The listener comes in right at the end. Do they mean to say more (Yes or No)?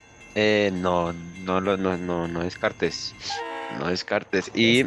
No